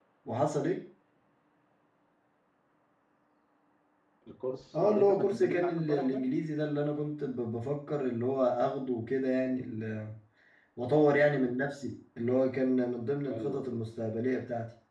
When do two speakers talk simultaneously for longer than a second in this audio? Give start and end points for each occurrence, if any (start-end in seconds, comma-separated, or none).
4.8-6.2